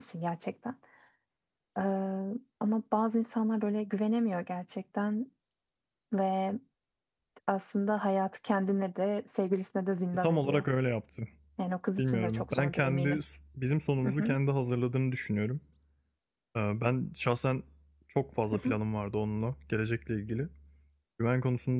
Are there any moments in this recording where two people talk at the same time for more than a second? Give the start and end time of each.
12.0-13.2

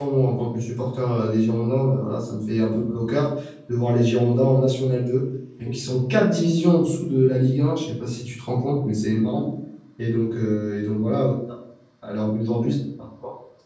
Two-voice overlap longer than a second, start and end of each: none

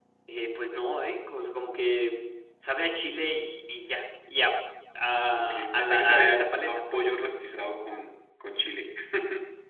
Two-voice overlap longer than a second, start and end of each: 5.3-7.1

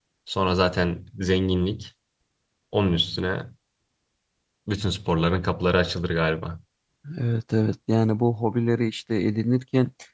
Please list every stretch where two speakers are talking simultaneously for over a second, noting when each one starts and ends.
none

